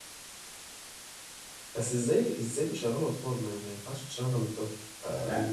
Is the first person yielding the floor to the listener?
Yes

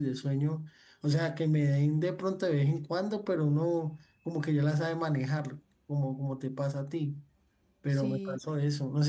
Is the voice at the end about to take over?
No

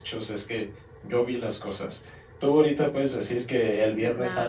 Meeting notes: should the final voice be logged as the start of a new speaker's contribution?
No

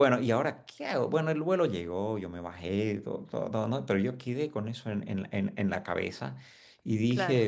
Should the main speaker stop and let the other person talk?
No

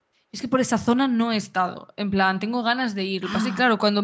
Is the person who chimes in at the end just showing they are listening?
Yes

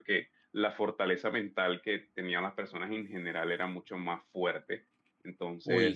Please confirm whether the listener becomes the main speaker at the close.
No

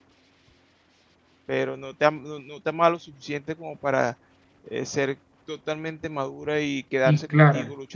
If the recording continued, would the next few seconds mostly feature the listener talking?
No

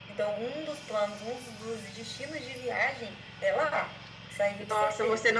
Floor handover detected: Yes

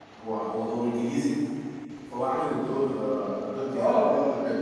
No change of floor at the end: No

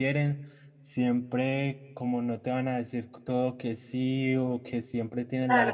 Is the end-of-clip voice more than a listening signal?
No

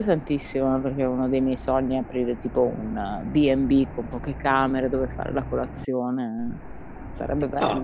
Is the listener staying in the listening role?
No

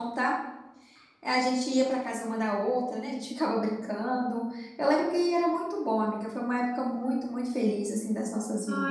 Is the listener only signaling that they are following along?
No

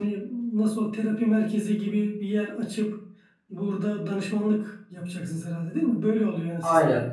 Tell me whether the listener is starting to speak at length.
Yes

